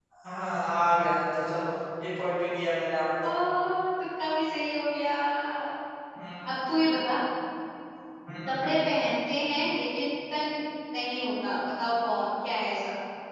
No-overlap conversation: Yes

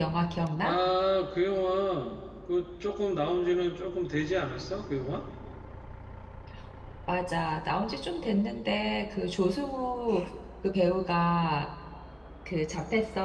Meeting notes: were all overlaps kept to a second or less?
Yes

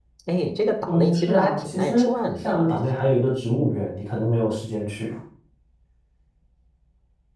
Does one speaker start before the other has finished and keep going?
Yes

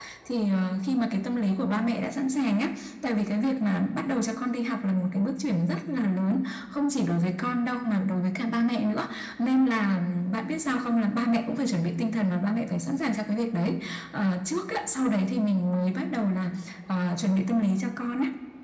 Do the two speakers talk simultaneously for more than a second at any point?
No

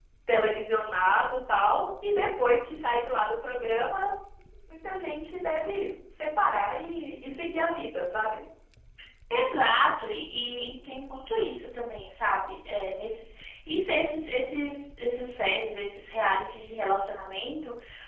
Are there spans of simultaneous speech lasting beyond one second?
No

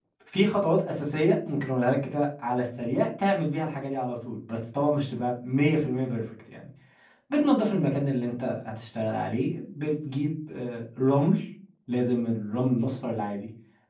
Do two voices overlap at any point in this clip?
No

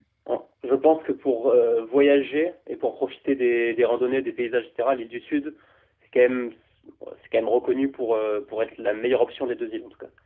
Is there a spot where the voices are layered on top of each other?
No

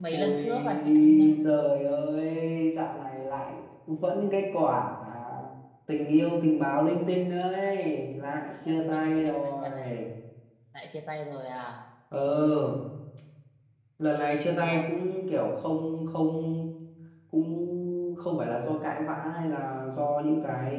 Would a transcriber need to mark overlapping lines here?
Yes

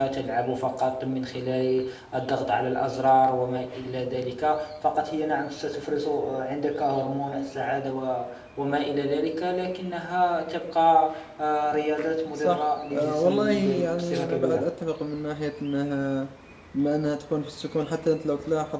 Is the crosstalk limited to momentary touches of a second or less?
No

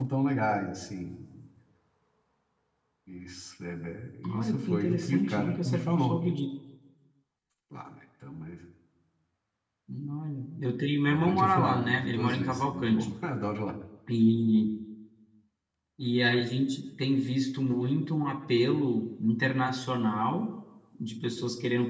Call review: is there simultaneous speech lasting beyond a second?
Yes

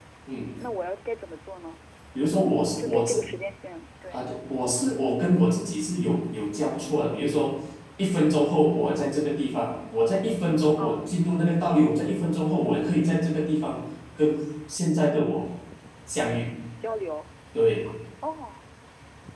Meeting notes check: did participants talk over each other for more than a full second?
No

